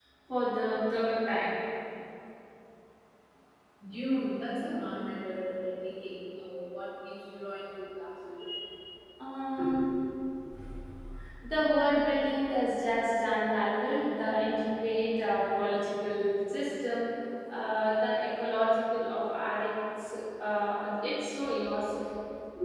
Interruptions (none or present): none